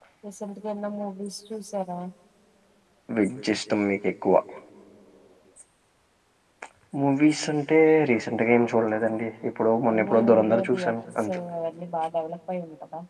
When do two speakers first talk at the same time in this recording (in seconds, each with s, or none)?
9.9 s